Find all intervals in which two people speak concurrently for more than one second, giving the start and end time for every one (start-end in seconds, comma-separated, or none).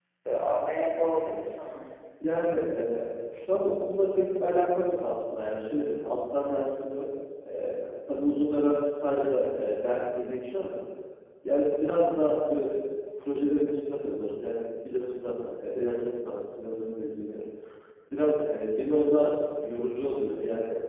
none